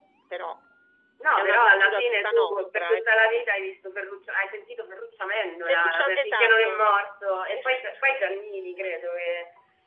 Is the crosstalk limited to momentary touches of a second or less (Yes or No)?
No